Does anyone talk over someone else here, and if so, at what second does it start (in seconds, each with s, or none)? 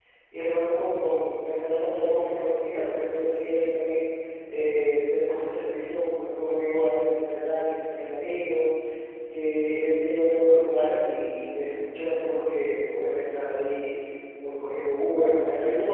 none